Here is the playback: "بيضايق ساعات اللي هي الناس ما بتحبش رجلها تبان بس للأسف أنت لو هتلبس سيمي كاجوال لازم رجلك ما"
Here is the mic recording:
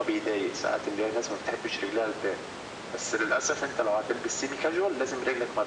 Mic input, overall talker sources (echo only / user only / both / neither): echo only